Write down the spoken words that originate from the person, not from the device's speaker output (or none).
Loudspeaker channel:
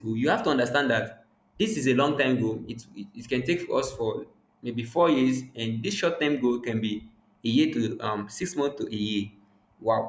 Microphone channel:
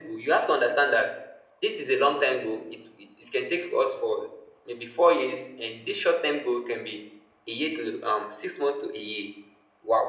none